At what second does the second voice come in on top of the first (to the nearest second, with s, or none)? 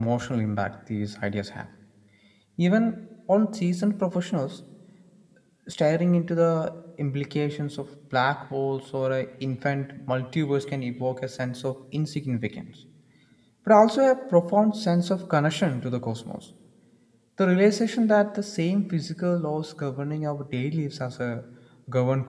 none